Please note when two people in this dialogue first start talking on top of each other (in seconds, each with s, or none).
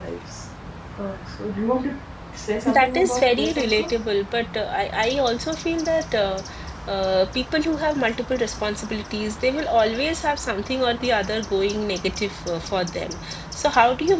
2.7 s